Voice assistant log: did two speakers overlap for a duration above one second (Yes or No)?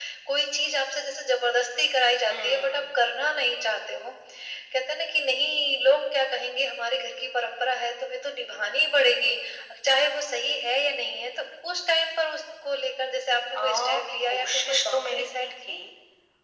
Yes